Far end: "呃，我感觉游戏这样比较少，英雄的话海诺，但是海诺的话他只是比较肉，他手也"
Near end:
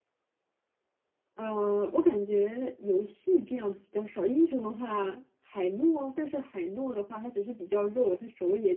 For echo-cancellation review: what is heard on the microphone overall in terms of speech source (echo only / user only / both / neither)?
echo only